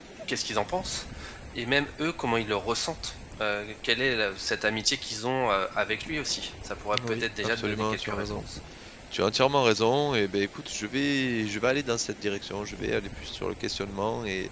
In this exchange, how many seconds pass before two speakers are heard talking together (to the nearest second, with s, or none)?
7 s